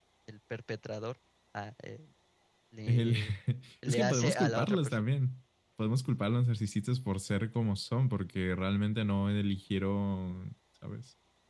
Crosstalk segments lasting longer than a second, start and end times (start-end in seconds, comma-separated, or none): 3.9-5.1